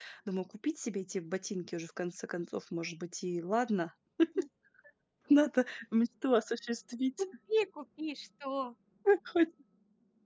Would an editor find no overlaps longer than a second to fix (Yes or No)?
Yes